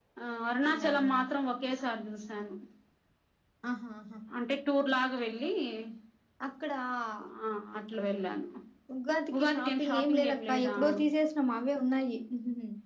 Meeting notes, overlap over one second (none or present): present